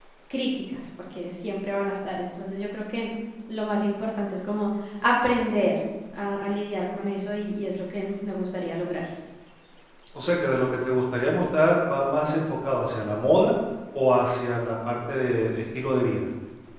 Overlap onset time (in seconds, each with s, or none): none